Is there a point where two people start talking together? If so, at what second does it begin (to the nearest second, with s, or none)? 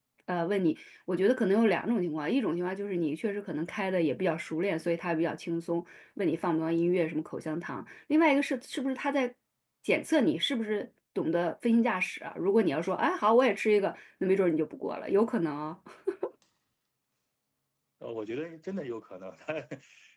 none